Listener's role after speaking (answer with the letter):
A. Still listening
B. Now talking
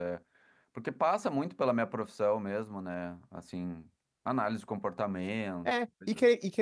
B